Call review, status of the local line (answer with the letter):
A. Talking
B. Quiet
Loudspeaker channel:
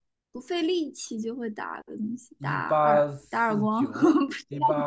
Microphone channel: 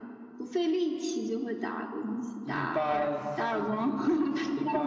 B